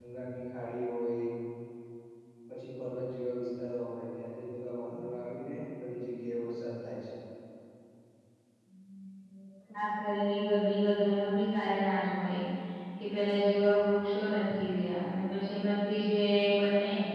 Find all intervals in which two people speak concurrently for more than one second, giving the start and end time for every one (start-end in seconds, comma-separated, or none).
none